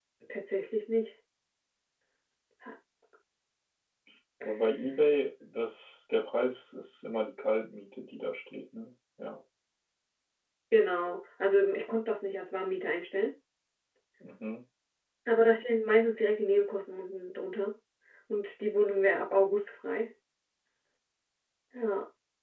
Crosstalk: none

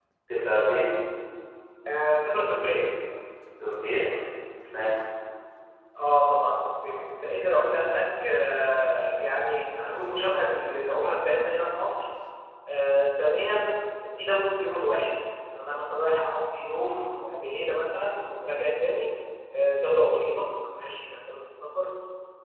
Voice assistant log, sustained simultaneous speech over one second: none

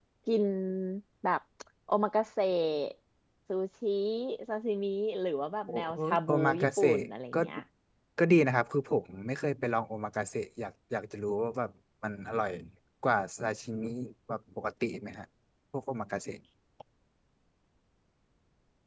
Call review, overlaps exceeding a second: present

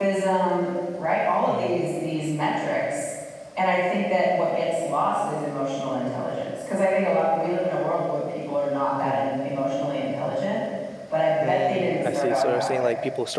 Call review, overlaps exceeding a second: present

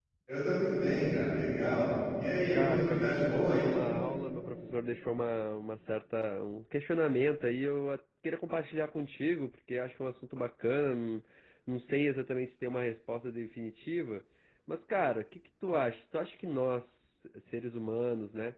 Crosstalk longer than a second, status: present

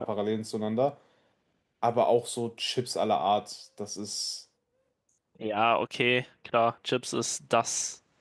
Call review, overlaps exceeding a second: none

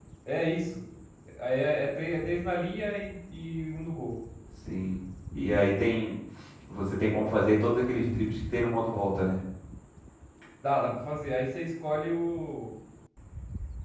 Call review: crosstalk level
none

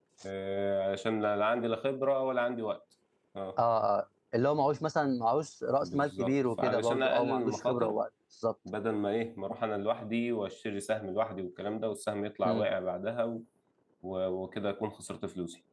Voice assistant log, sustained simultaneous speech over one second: present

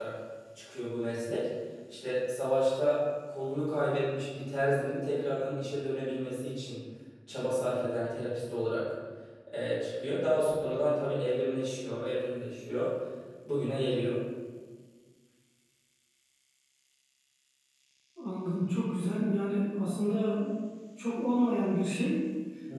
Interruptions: none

